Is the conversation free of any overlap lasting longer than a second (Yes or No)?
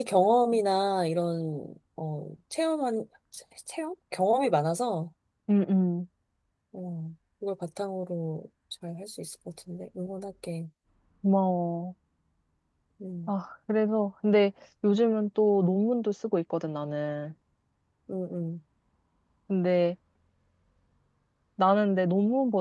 Yes